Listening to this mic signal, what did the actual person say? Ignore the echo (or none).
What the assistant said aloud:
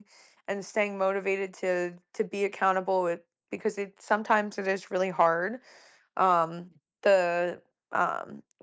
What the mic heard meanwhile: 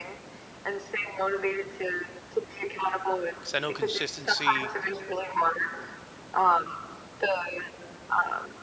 because i know consistency